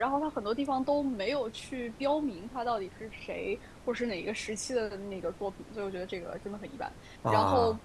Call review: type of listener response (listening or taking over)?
listening